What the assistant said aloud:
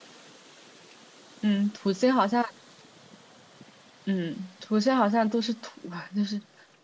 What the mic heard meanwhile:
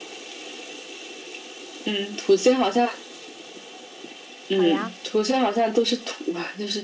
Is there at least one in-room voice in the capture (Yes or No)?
Yes